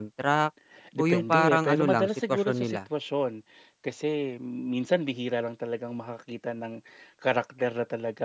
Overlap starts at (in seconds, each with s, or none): 1.0 s